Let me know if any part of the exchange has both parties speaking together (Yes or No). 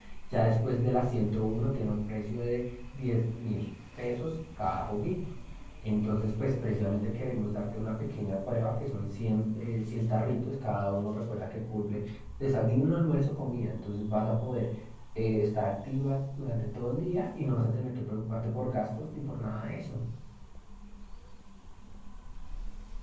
No